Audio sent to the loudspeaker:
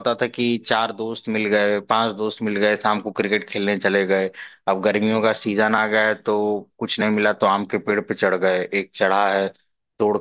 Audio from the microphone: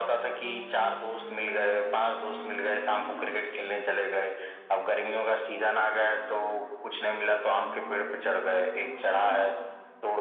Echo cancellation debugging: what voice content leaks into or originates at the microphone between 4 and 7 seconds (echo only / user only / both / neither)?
echo only